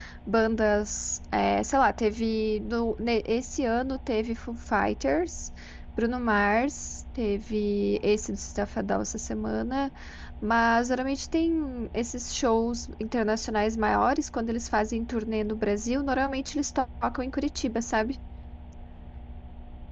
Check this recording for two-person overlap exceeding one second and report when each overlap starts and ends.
none

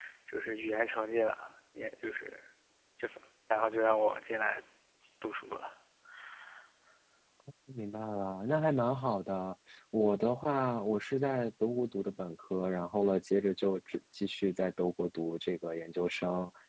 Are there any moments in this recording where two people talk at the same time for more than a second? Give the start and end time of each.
none

